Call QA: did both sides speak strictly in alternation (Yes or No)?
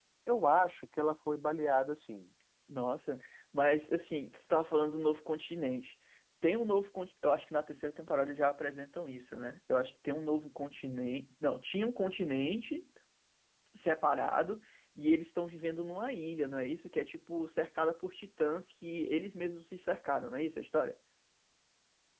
Yes